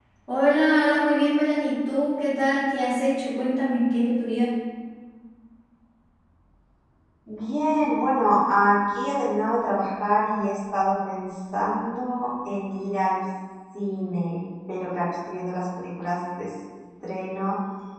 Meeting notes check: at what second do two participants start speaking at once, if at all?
none

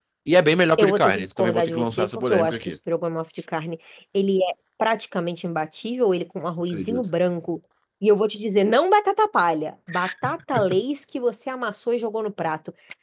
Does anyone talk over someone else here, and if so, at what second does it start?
0.8 s

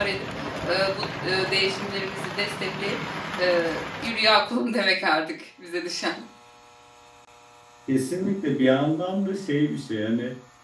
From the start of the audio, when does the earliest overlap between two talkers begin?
none

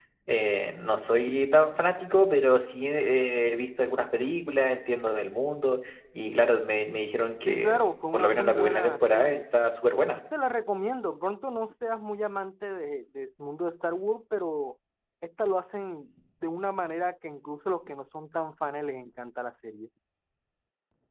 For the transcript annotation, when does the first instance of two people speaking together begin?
7.5 s

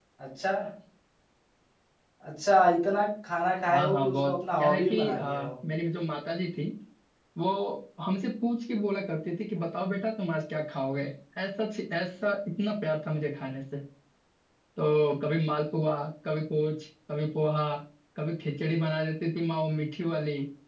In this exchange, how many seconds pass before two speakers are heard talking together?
3.7 s

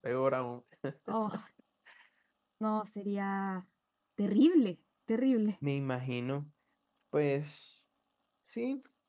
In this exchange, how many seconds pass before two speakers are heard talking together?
none

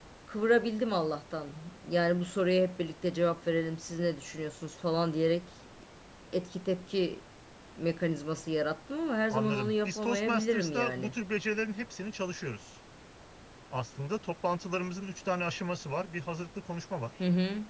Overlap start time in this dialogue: 9.3 s

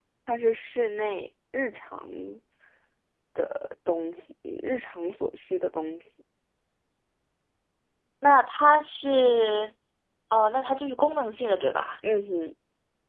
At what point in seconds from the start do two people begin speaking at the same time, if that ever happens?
none

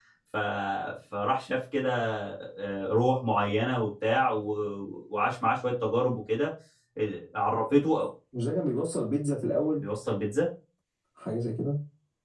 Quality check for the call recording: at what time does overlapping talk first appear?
none

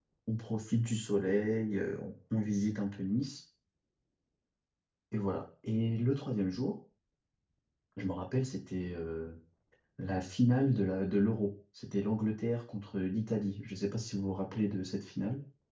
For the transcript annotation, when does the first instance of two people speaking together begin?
none

